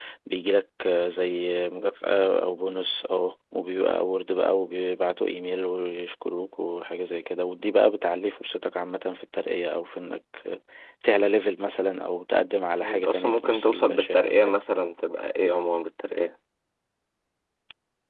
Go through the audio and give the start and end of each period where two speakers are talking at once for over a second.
12.8-14.5

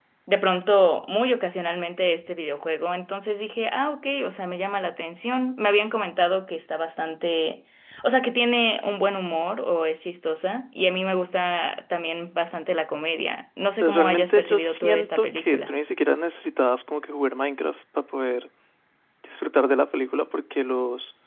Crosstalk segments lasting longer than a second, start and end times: 13.8-15.7

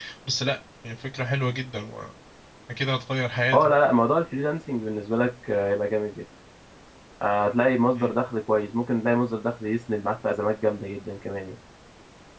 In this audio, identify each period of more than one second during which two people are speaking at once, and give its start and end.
none

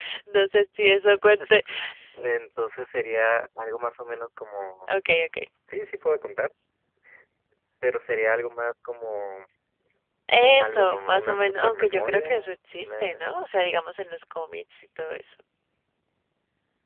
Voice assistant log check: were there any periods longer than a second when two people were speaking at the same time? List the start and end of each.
10.6-13.2

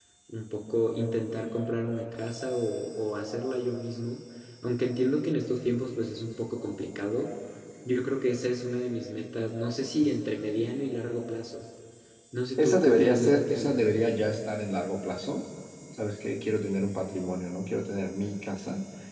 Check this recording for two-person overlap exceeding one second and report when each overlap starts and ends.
12.6-13.8

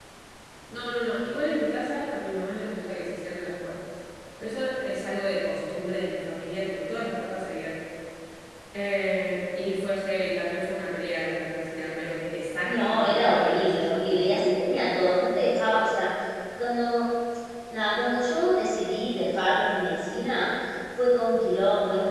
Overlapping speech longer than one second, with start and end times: 12.6-14.4

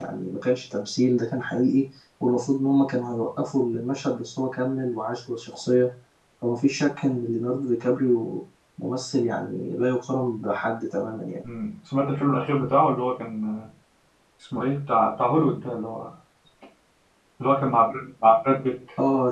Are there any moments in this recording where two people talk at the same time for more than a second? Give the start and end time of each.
none

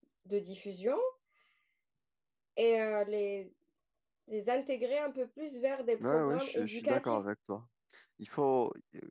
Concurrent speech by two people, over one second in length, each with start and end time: 6.0-7.2

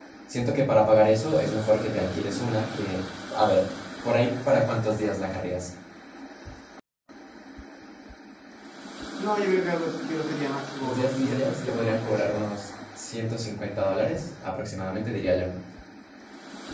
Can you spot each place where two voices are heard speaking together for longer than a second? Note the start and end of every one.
10.8-12.2

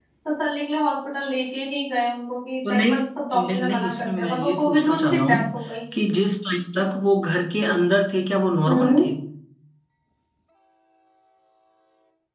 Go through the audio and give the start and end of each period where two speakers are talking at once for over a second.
3.3-5.5

